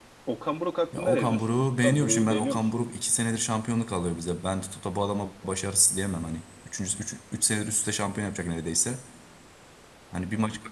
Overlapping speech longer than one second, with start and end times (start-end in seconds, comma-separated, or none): 0.9-2.7